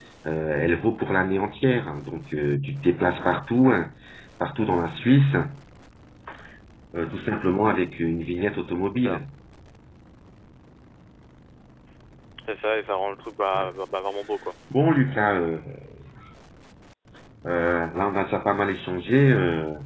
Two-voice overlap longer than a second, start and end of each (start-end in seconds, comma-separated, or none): none